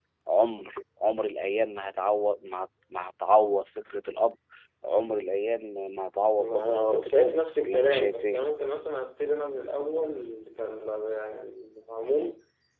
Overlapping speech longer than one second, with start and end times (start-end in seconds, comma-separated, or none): 6.4-8.4